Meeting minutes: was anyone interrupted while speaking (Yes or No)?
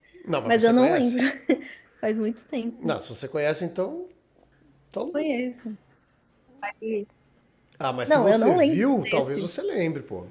Yes